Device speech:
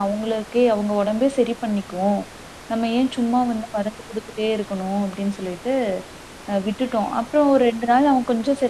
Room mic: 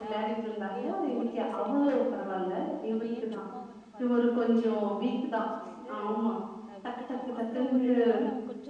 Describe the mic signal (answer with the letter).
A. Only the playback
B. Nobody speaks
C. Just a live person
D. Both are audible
D